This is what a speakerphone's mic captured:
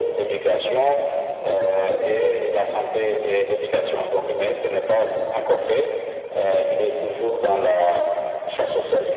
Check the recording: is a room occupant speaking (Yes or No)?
No